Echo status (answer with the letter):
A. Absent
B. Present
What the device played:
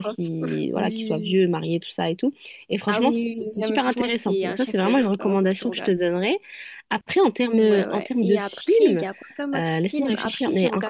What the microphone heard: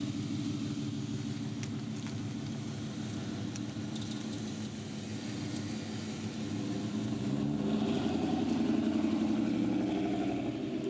A